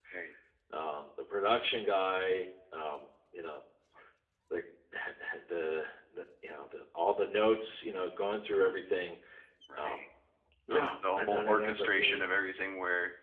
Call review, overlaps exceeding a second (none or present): present